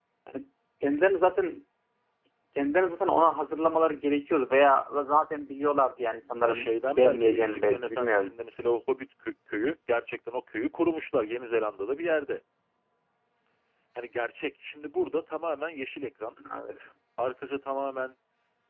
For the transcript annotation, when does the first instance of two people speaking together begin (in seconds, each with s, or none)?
6.4 s